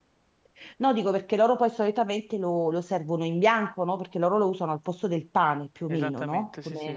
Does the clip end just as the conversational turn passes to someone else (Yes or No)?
Yes